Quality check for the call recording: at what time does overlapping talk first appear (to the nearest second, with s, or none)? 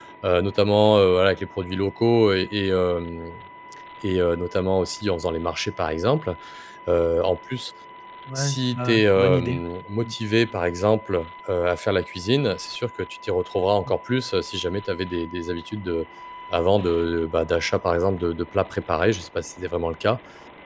8 s